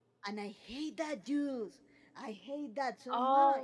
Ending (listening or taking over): taking over